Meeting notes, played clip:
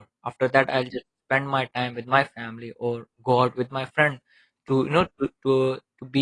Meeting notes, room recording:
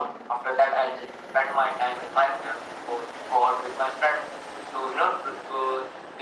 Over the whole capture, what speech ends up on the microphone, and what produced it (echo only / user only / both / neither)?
echo only